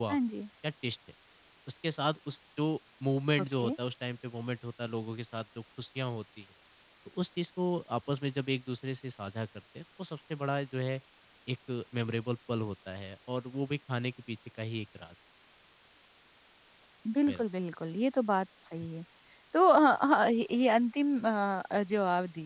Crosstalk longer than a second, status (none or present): none